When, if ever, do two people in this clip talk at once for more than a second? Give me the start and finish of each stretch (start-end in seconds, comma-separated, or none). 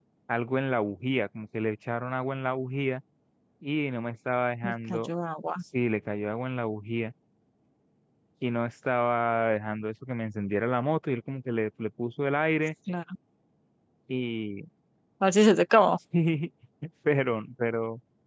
none